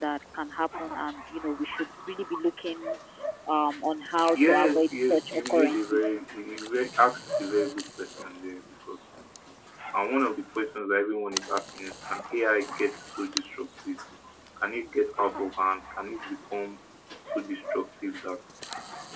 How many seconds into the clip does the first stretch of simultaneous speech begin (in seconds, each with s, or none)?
4.3 s